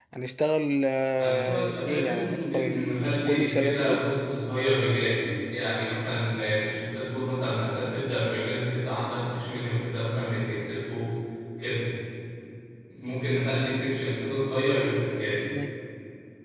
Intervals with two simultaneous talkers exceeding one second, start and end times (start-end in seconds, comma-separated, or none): 1.2-4.2